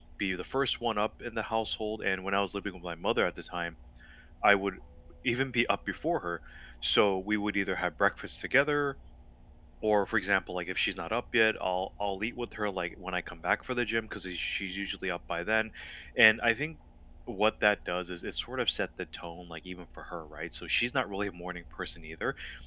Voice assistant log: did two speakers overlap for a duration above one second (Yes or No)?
No